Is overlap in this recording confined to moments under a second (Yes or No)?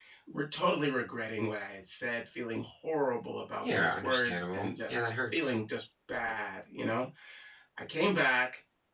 No